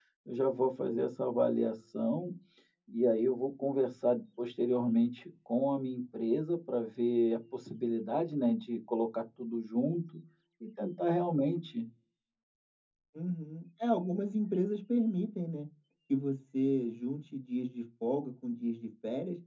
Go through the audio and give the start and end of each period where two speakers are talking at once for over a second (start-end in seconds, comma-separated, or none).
none